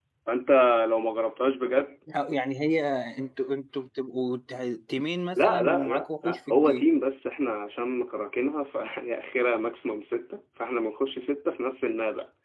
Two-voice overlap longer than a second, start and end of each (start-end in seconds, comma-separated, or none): 5.3-6.9